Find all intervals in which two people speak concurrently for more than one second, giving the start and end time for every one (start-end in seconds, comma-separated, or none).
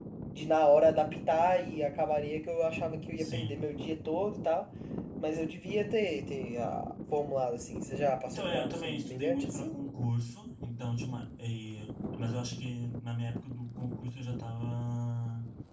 8.3-9.8